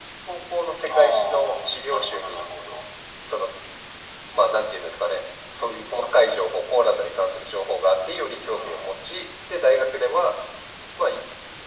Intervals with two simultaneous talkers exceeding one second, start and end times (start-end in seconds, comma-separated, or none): 0.9-2.4